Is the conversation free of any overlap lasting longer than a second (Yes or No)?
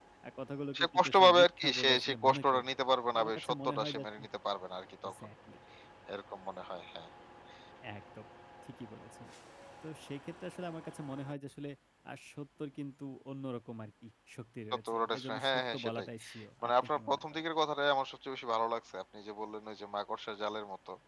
No